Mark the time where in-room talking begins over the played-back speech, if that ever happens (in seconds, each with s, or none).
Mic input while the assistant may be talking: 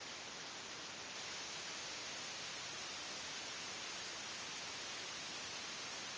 none